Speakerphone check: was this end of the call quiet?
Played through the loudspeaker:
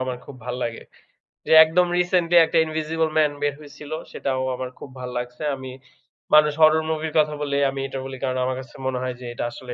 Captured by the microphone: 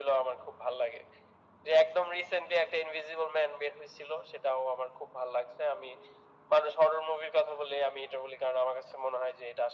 Yes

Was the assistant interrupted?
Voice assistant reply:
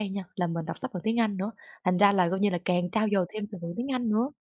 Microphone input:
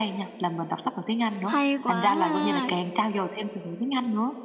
Yes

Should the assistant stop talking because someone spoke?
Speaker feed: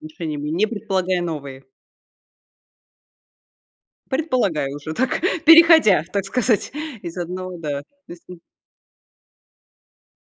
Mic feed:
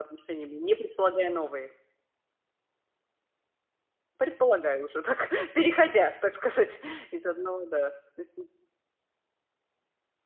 No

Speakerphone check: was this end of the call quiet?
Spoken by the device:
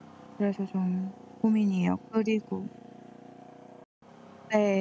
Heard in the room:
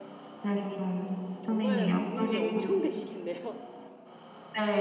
No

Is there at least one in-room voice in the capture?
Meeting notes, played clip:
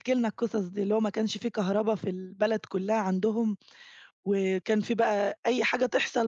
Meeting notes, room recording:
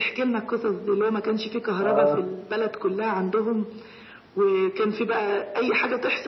Yes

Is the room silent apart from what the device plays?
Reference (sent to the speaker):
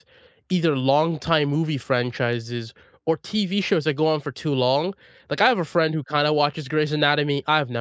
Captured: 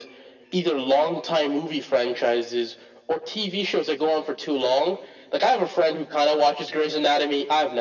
Yes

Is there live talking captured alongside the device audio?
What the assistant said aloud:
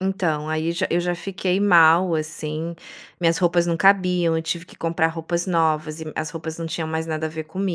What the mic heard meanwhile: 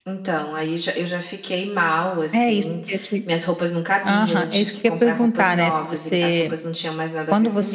Yes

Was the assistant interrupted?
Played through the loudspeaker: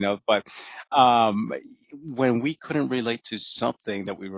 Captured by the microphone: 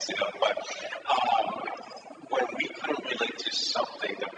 No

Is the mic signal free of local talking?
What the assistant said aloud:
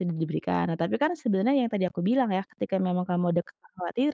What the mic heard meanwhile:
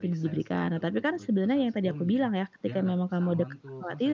No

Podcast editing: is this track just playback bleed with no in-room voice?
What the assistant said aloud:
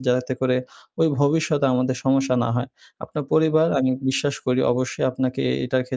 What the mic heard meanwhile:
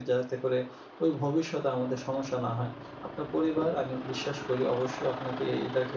Yes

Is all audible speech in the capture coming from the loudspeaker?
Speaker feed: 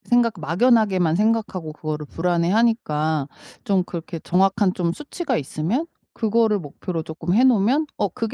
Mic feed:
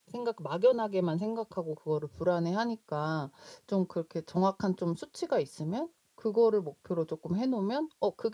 Yes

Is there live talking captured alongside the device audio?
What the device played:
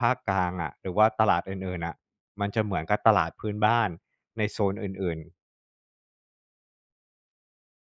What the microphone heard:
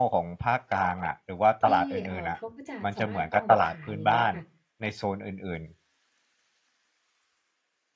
Yes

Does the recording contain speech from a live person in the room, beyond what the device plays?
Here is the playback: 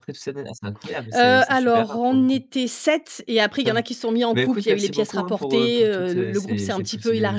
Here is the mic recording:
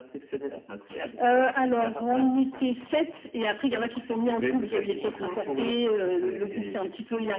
Yes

